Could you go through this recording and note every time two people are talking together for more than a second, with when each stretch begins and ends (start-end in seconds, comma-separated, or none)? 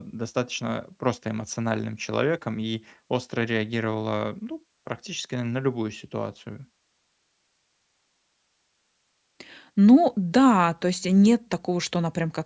none